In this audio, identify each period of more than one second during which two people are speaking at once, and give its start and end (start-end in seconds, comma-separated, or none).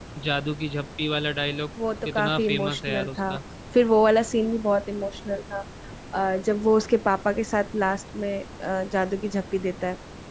2.0-3.4